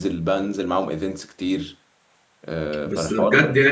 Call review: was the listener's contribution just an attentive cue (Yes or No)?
No